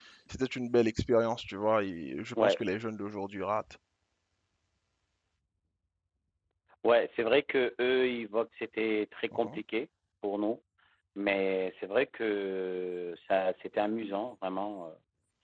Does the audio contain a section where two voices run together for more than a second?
No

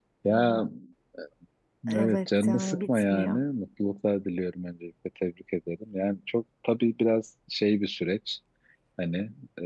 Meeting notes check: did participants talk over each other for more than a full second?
Yes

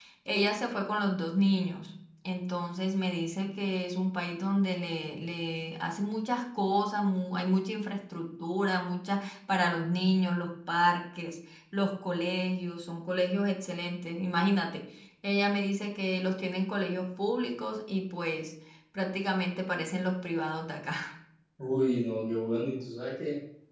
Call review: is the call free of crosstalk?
Yes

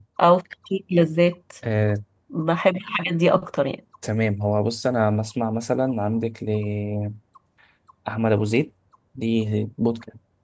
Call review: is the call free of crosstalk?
Yes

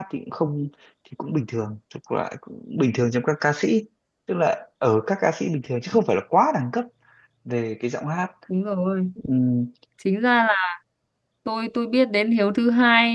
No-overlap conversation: Yes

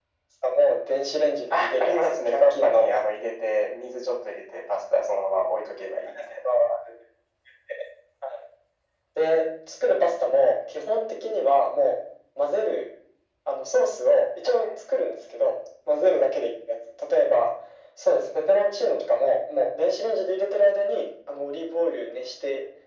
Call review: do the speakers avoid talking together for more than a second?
No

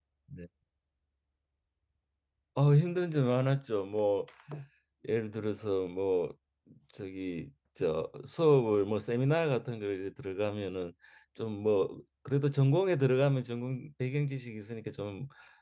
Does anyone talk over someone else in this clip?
No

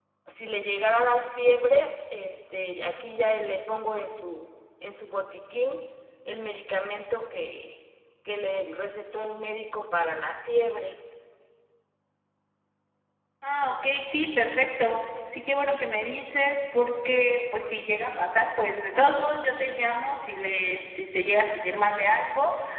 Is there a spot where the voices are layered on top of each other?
No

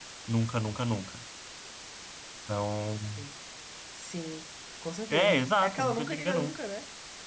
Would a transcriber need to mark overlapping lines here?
Yes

